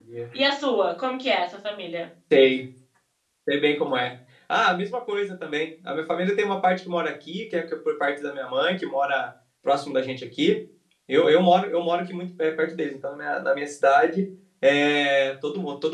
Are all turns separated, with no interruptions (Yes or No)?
Yes